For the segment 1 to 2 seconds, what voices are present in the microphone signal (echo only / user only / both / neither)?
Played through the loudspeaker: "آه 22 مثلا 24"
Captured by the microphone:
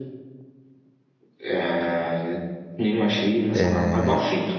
echo only